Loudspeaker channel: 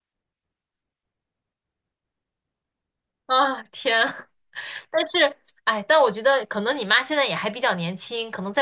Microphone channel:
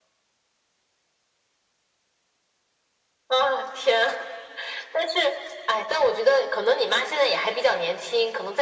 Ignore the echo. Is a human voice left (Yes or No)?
No